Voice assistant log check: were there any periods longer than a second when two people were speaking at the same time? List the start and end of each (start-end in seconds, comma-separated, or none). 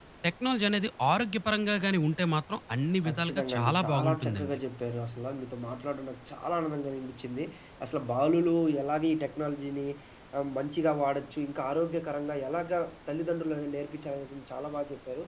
3.0-4.6